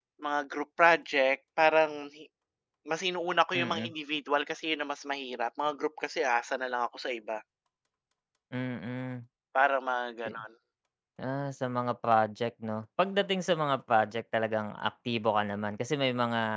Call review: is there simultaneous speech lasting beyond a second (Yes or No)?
No